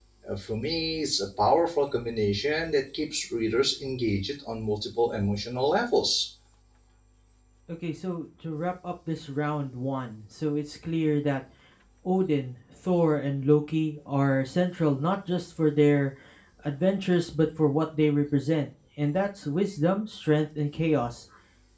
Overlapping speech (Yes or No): No